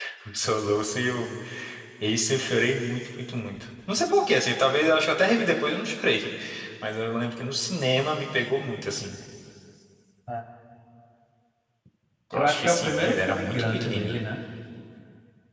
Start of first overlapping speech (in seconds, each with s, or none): 12.3 s